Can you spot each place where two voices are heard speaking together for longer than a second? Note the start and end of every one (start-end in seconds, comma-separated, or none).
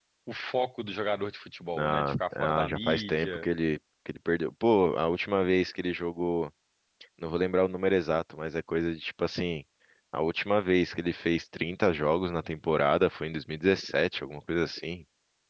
1.8-3.4